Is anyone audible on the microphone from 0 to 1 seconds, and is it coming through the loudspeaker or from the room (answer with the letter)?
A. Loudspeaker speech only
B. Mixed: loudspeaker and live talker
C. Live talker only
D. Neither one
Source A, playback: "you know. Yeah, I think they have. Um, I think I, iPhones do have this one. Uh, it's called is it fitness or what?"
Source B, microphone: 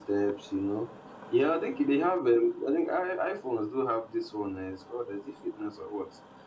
A